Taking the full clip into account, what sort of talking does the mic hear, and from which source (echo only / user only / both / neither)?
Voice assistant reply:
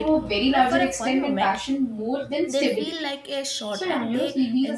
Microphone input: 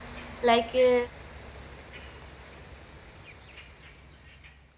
user only